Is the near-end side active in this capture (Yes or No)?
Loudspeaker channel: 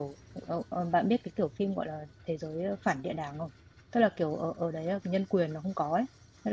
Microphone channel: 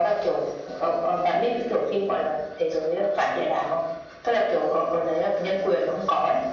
No